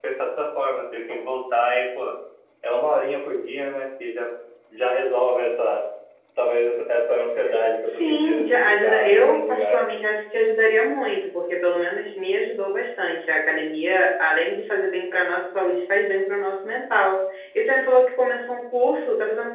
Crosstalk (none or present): present